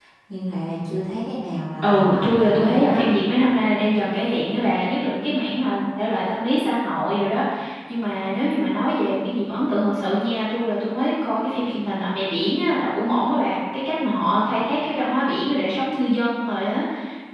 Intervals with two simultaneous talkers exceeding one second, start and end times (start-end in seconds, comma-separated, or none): 1.8-3.1